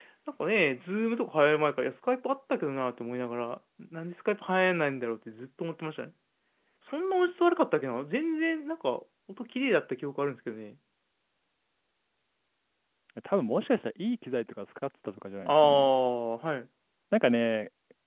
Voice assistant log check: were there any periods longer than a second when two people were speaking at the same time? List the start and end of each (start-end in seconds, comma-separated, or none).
none